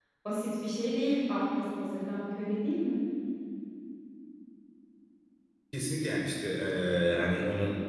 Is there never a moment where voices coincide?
Yes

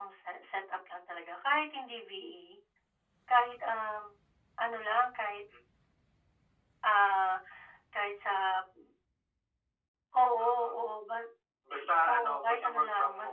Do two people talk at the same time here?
Yes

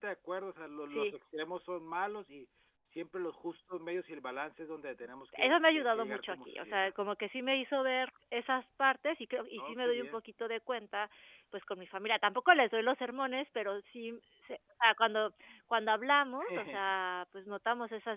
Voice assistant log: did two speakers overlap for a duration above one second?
Yes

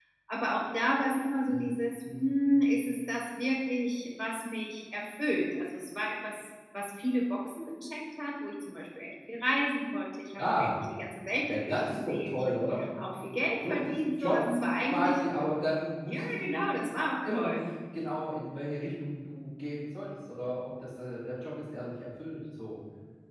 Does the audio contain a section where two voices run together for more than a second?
Yes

